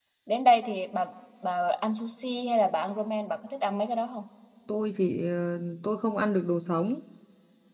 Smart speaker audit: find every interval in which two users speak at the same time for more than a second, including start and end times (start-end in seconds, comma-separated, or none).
none